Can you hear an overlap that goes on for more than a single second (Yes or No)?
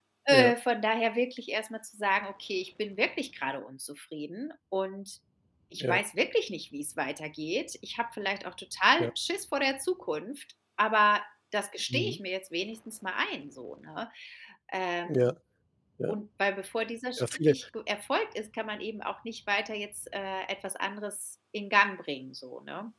No